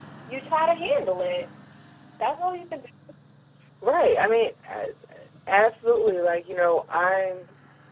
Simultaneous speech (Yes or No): No